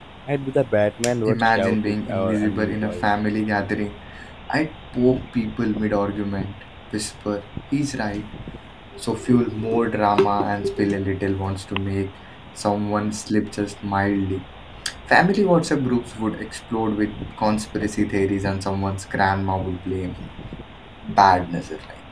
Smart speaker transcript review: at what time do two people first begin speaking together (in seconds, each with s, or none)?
1.3 s